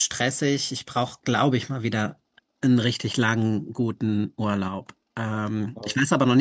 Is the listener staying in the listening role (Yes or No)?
Yes